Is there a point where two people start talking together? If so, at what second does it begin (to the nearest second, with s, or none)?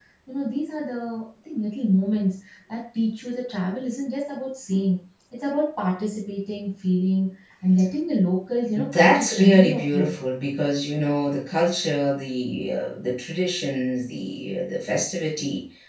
9 s